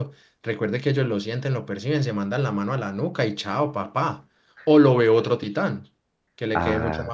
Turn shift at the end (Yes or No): No